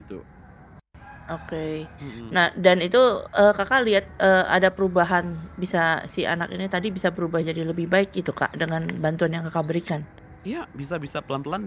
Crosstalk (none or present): none